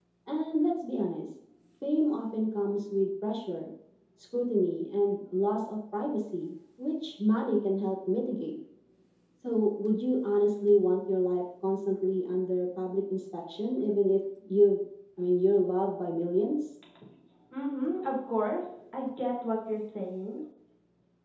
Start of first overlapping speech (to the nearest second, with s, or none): none